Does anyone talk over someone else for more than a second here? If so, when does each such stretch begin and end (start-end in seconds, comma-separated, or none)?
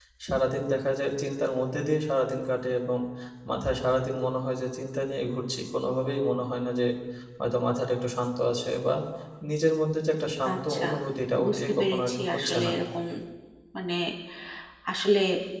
11.4-12.7